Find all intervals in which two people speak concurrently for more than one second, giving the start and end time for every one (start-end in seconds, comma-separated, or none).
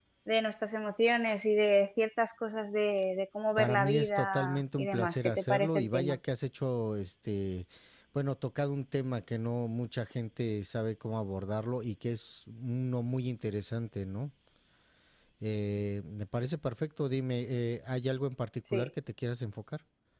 3.6-6.2